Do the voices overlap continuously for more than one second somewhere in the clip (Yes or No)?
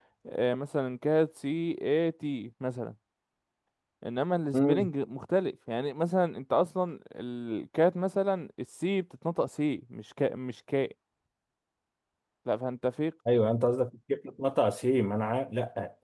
No